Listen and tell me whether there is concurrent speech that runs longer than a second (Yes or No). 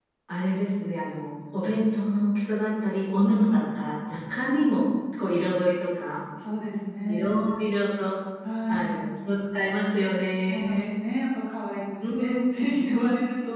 No